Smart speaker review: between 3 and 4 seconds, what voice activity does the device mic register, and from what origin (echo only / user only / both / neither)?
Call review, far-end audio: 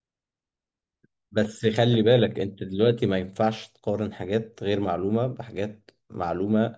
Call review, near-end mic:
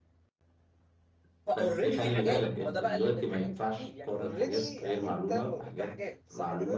both